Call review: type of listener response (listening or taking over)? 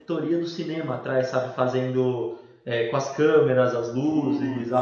listening